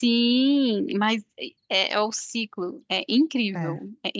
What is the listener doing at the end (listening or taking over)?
listening